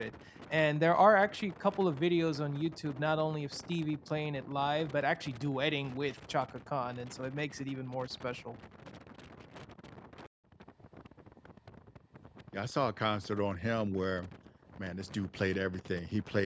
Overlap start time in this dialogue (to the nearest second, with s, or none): none